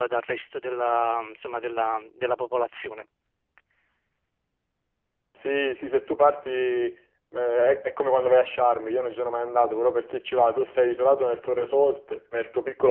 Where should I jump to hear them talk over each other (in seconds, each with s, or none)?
none